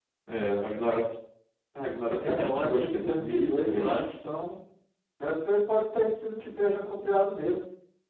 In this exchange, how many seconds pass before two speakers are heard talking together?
2.2 s

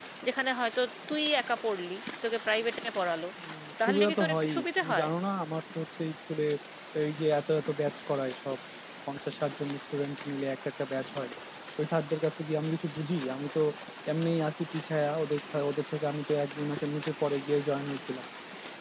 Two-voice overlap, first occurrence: 3.8 s

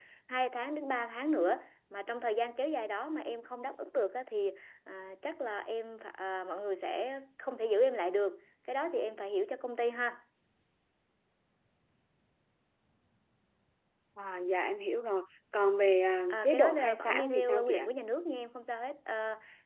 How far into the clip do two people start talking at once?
16.3 s

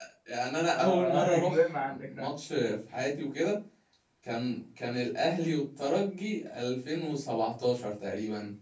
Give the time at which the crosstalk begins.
0.7 s

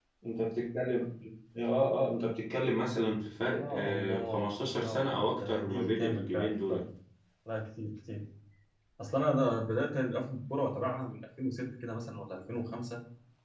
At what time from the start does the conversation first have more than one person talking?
3.6 s

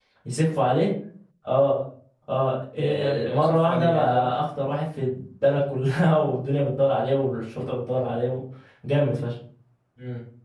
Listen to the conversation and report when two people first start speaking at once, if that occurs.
2.8 s

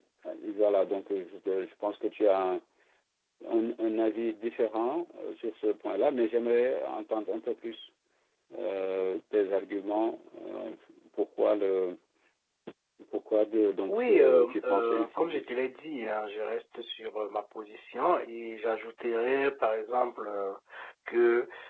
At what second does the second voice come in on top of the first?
13.9 s

